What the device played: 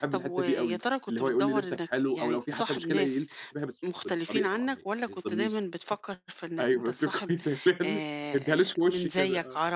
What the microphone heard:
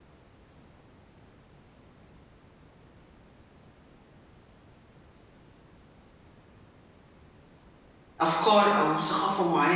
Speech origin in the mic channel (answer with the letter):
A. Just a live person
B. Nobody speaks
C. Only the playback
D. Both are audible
A